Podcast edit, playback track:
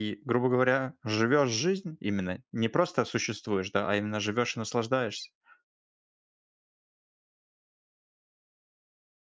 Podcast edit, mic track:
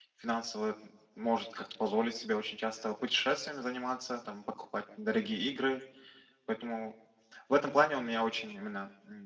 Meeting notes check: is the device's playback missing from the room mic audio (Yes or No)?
Yes